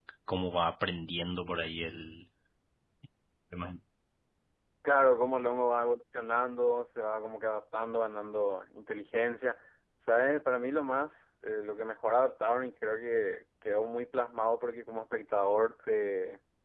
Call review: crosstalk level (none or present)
none